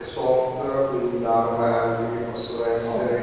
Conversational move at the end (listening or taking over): listening